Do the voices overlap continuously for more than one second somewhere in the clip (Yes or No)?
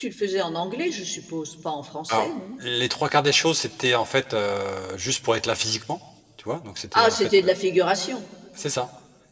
No